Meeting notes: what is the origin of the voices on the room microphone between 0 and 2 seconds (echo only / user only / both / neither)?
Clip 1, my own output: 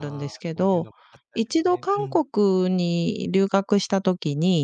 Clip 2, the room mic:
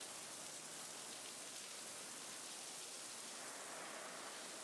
neither